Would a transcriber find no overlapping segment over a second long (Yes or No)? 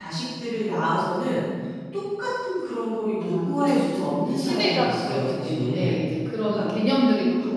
No